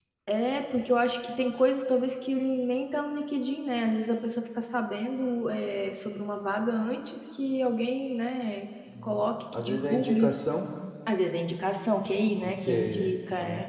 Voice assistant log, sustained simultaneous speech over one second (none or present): present